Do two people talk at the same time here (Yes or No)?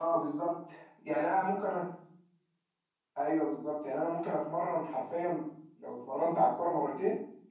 No